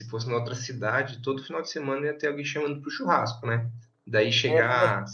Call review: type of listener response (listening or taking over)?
listening